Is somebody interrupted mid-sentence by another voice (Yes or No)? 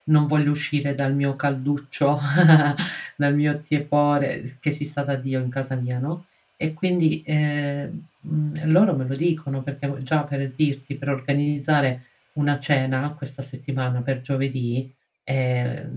No